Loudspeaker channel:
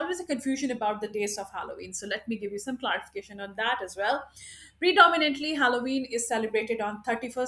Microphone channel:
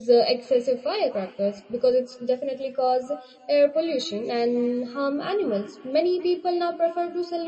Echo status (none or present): none